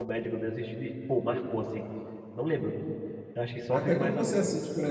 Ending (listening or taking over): taking over